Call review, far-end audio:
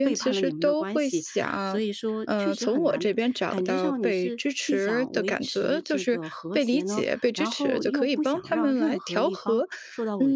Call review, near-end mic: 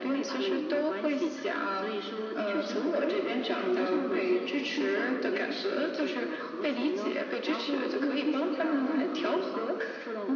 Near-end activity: none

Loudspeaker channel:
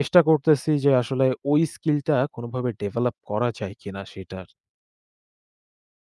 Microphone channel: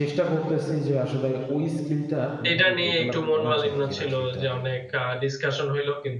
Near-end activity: present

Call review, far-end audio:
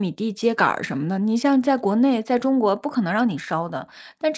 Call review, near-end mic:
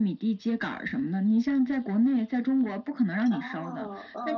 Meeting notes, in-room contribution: present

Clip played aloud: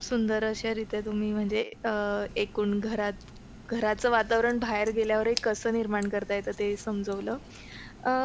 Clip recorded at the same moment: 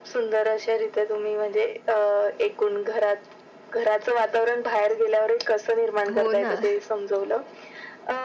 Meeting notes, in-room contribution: present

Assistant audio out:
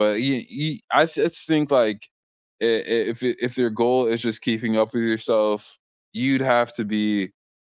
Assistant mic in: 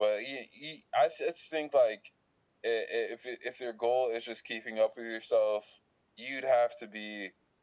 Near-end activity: none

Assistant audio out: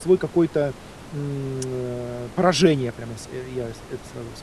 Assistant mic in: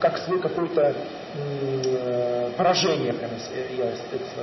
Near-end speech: none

